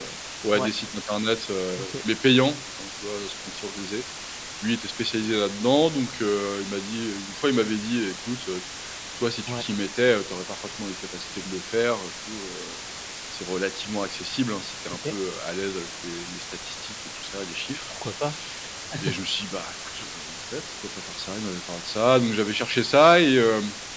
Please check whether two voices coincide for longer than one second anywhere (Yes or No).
No